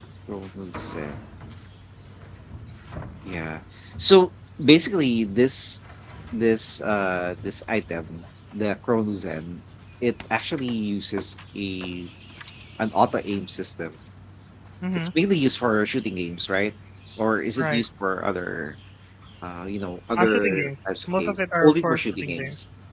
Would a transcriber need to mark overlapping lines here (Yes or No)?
Yes